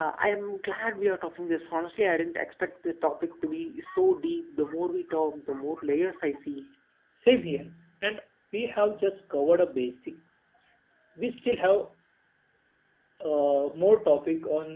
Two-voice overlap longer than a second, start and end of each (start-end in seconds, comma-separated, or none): none